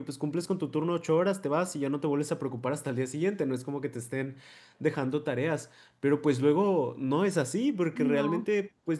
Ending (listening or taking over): listening